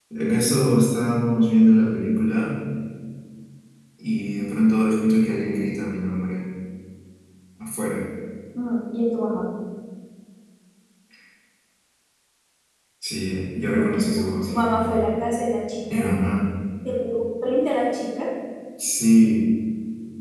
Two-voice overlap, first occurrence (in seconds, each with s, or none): 13.6 s